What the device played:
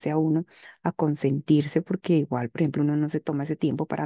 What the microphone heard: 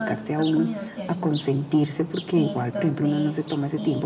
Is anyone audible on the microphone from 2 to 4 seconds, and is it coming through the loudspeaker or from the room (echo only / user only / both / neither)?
both